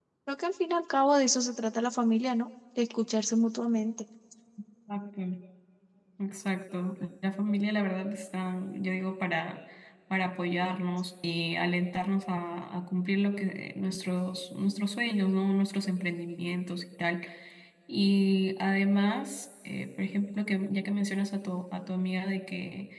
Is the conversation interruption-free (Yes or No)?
Yes